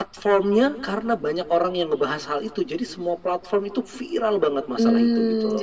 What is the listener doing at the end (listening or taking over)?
taking over